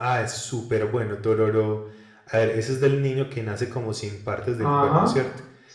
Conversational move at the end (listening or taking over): taking over